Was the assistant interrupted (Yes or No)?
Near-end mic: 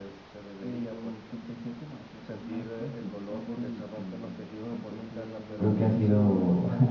Yes